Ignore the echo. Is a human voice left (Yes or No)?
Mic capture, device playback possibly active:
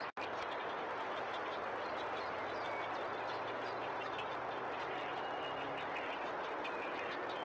No